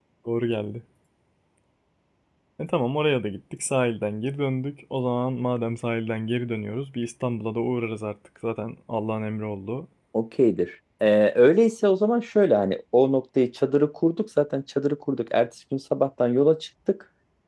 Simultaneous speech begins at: none

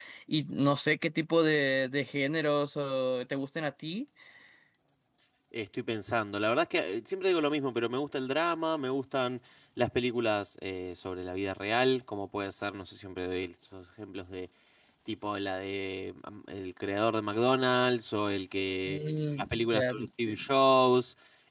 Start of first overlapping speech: 18.8 s

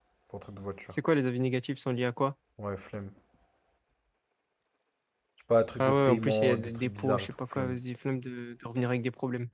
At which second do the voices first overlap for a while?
5.8 s

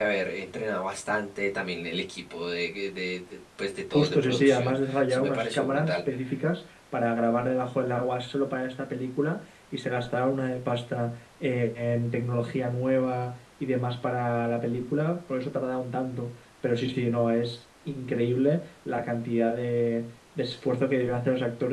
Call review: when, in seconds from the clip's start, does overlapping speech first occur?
3.9 s

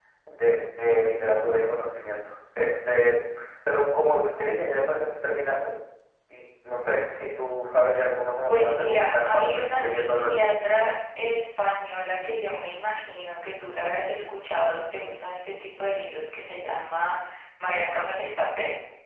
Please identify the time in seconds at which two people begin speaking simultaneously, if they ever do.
8.5 s

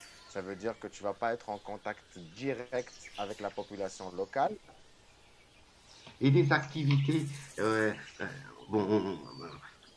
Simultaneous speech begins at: none

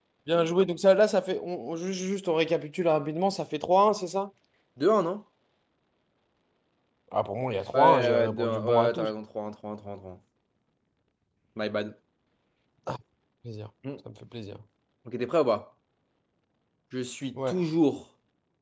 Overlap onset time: 7.7 s

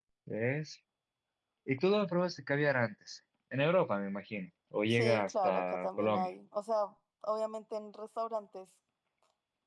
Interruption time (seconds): 4.9 s

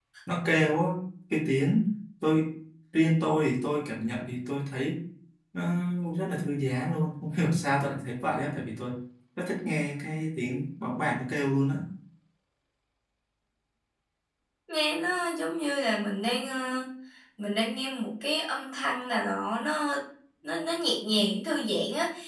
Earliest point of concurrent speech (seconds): none

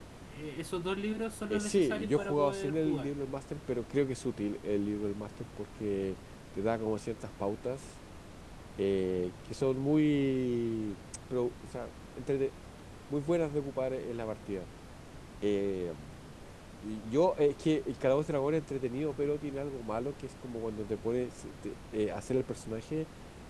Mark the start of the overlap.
1.5 s

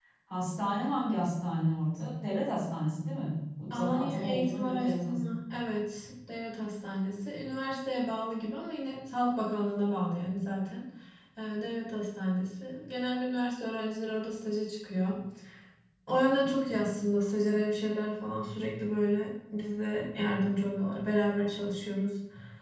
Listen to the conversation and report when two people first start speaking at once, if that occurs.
3.7 s

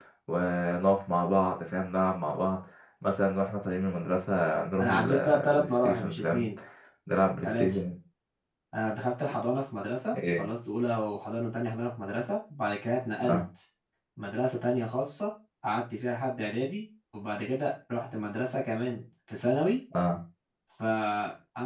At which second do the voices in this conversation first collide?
4.8 s

